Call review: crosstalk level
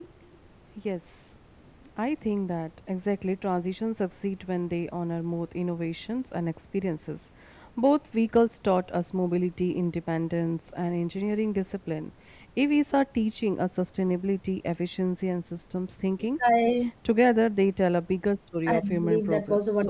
present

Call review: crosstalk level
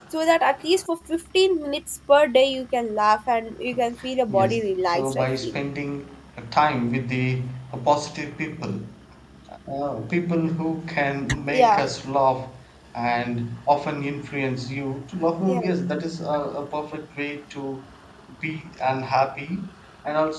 present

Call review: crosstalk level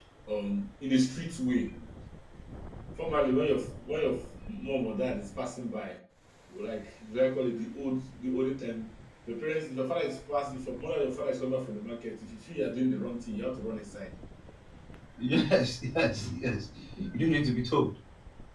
none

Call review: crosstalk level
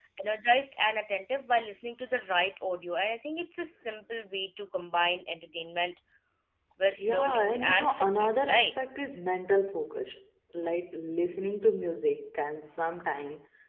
present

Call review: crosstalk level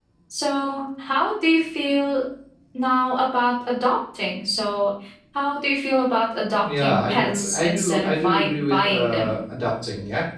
present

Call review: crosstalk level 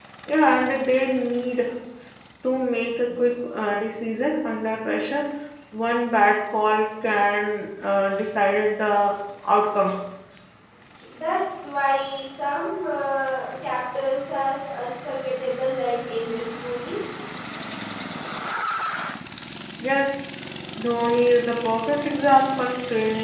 none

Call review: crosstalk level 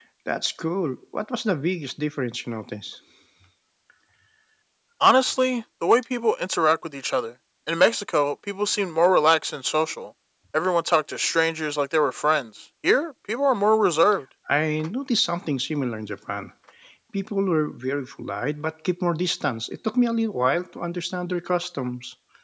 none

